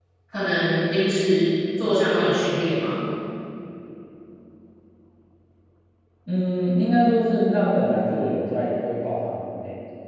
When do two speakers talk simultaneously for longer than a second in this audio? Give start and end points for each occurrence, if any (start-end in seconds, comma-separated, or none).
none